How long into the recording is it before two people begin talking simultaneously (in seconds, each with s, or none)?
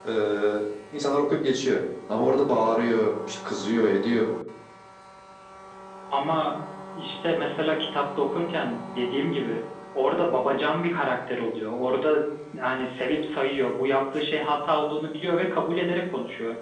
none